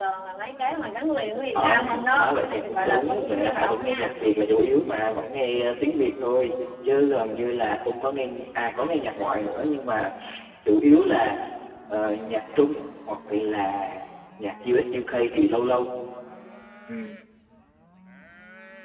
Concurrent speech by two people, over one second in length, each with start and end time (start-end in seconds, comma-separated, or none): 1.5-4.1